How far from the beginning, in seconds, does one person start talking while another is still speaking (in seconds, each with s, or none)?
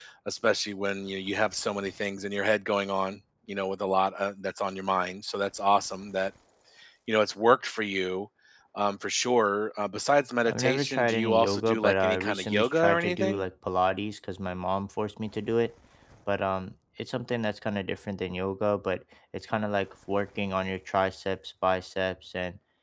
10.5 s